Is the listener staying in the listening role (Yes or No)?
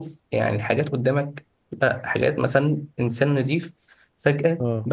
Yes